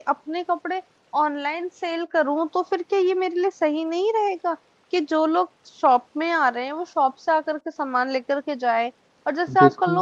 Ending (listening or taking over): listening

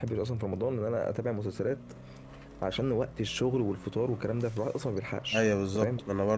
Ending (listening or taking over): taking over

